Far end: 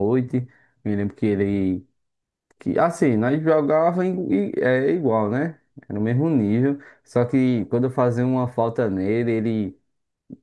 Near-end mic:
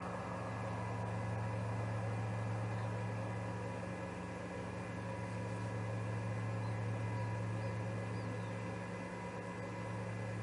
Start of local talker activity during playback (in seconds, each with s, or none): none